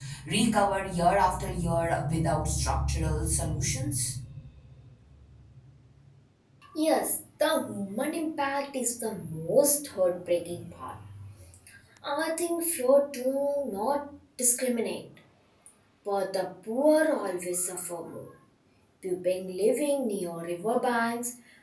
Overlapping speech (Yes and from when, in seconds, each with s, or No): No